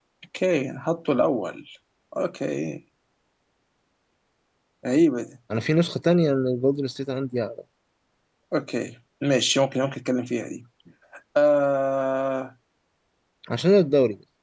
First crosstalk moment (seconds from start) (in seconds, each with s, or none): none